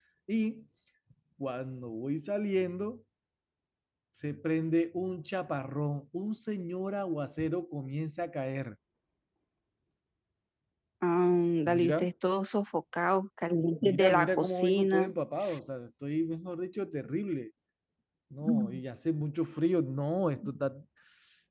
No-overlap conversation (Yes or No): No